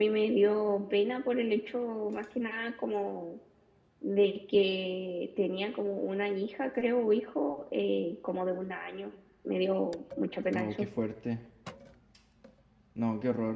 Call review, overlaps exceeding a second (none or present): none